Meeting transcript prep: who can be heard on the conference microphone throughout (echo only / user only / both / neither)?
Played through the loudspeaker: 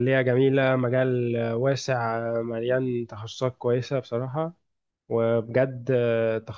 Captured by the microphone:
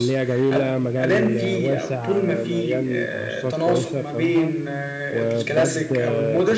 both